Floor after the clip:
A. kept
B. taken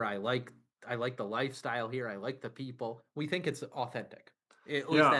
B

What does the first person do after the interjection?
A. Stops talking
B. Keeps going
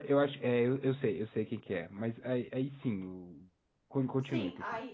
A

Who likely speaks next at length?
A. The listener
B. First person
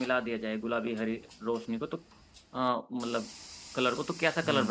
A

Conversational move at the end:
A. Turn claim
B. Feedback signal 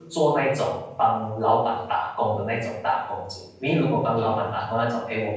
B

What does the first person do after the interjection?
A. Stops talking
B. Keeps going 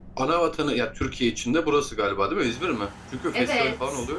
A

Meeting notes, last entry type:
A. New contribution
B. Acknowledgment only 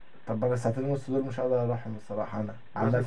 A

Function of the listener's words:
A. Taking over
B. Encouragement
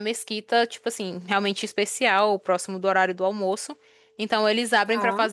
B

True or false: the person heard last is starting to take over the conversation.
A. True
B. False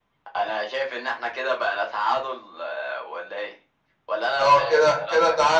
A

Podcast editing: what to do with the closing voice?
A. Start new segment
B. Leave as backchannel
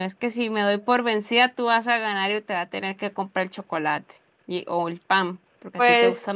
A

